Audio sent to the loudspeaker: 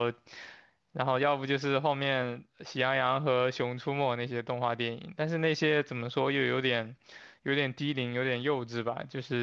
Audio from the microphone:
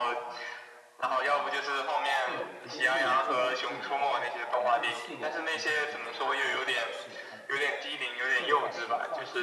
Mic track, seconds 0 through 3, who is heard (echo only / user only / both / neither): both